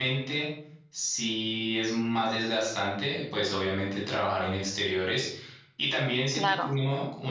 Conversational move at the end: listening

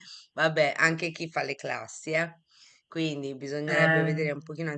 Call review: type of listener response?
listening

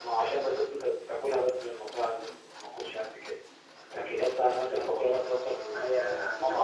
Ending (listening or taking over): taking over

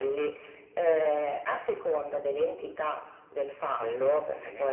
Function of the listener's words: listening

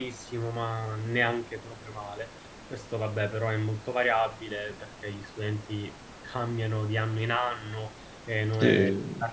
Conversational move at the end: listening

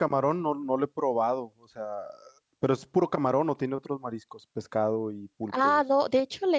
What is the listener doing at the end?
taking over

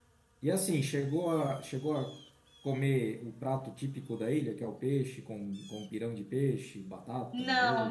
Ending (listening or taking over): taking over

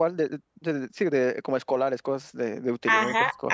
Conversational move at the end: taking over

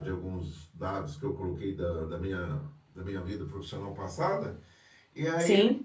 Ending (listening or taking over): listening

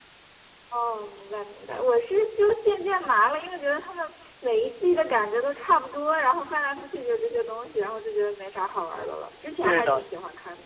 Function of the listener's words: taking over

